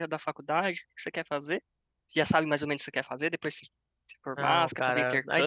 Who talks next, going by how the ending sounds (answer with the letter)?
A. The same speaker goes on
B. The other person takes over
B